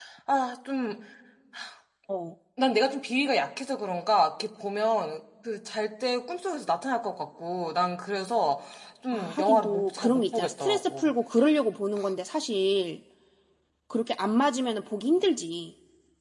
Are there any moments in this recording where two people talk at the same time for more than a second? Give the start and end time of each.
9.1-11.1

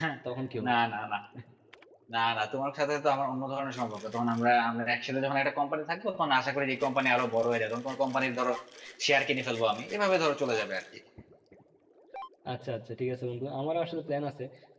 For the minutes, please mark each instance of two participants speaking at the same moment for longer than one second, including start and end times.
none

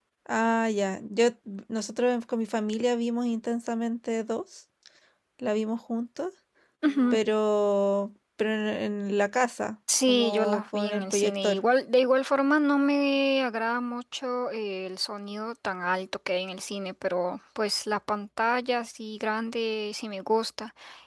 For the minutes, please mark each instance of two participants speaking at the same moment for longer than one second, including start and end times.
10.1-11.6

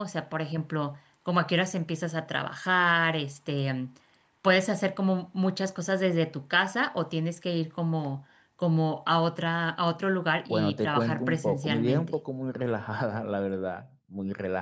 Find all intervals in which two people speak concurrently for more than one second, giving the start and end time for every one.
10.5-12.1

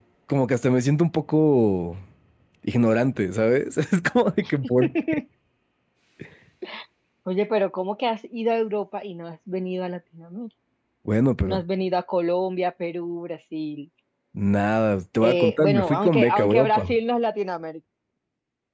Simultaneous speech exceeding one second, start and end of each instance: 15.2-17.0

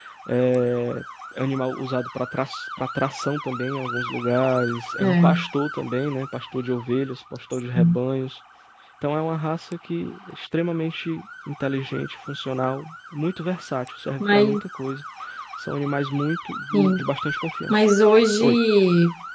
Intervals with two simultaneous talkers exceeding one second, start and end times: none

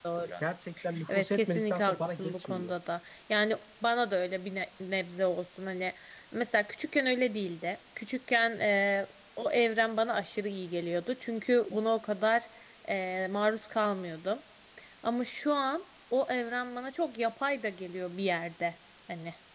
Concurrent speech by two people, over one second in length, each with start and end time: 1.1-2.7

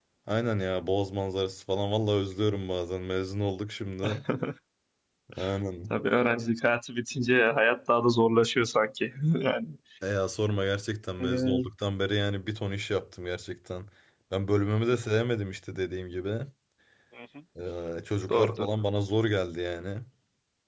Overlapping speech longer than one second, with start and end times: none

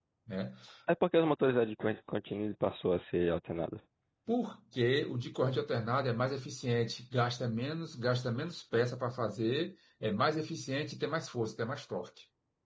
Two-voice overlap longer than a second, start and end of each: none

